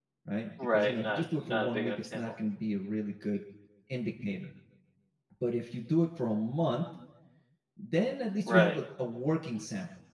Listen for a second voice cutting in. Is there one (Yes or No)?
Yes